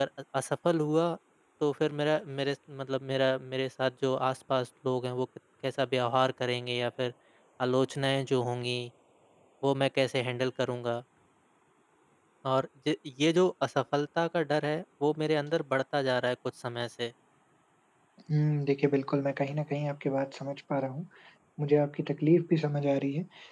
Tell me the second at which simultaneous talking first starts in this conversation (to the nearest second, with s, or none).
none